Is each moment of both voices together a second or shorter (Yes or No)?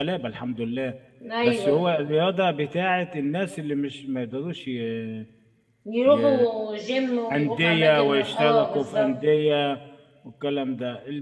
No